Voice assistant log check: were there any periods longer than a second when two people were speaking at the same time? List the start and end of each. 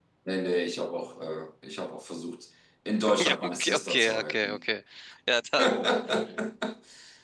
3.2-4.6

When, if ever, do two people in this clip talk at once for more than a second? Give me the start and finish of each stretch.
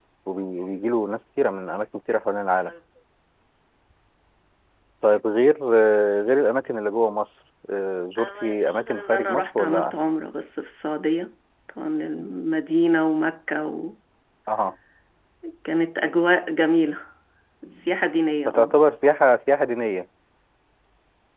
8.2-10.0

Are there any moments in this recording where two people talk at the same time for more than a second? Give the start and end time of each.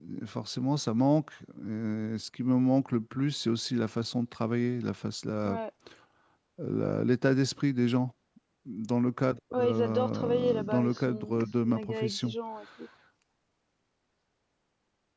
9.5-12.3

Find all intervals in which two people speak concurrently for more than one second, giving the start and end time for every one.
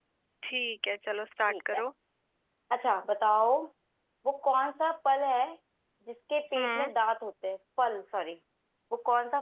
none

